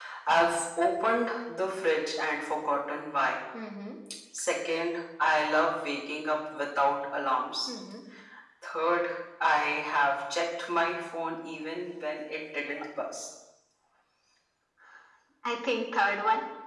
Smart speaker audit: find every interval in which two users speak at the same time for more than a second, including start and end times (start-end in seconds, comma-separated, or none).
none